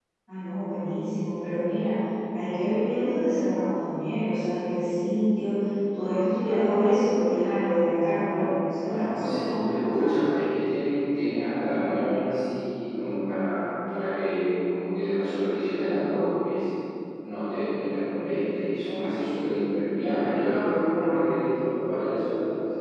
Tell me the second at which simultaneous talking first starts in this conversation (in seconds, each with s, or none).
8.8 s